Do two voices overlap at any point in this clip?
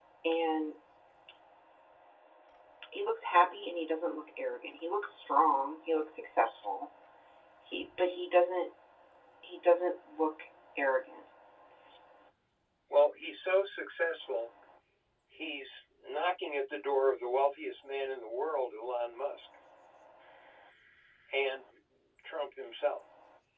No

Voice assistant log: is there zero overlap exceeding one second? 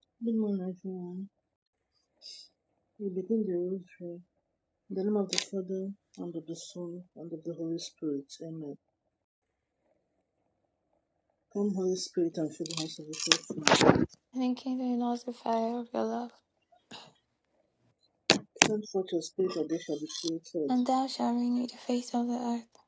Yes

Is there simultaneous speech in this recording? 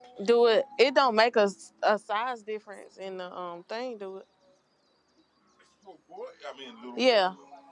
No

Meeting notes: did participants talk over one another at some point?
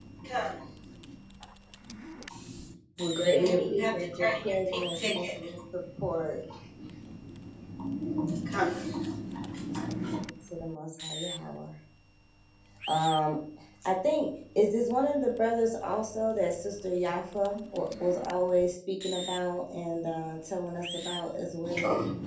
Yes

